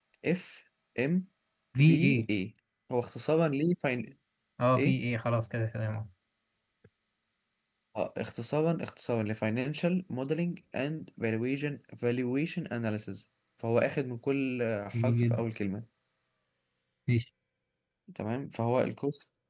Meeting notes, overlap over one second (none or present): none